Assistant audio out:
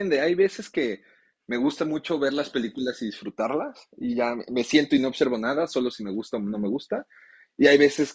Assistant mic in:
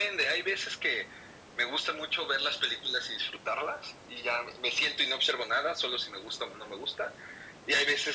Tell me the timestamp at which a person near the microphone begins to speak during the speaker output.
none

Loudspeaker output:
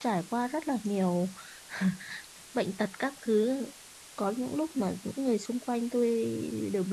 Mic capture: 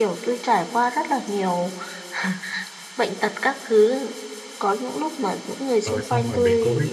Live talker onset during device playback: 5.8 s

